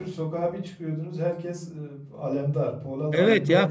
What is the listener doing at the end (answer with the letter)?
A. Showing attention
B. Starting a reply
B